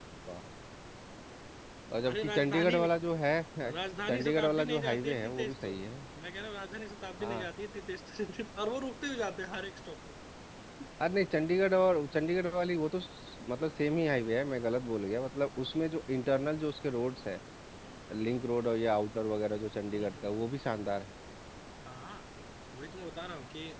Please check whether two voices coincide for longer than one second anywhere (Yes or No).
Yes